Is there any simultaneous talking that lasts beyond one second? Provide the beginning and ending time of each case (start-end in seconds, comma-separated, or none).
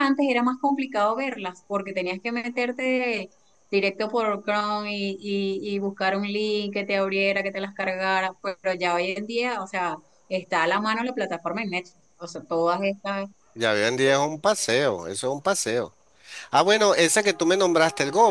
none